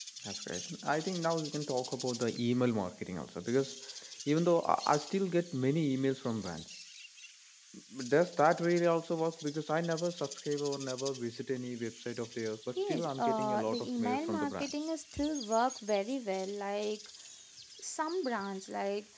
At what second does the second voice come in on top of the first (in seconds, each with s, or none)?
12.8 s